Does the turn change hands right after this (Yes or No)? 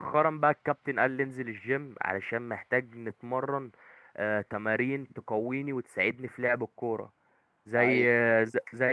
No